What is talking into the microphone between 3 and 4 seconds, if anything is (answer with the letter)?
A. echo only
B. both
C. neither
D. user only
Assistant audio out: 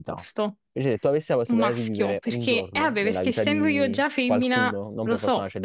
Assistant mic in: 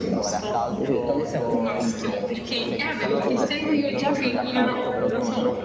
B